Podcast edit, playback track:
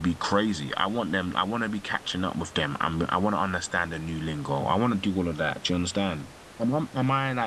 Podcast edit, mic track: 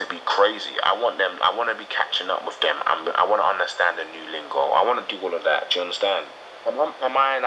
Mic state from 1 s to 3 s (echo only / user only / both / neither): echo only